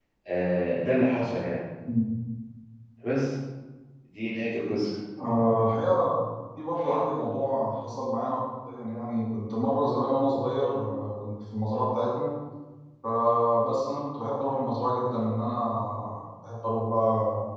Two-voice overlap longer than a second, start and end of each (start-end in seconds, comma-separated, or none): none